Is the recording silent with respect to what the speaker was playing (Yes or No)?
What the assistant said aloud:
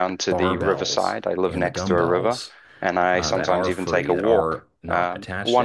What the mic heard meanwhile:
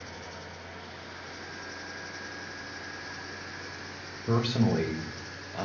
Yes